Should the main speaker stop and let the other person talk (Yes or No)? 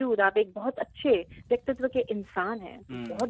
Yes